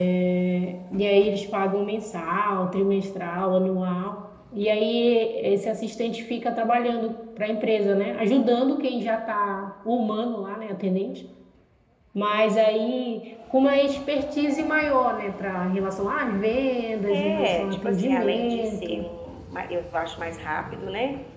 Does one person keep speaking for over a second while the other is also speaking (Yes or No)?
Yes